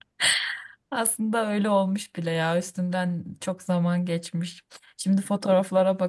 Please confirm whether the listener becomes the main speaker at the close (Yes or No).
No